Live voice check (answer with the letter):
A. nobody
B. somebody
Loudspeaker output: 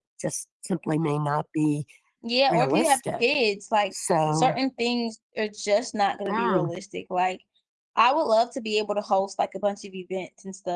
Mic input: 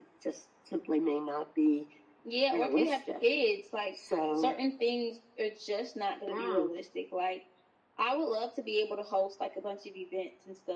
A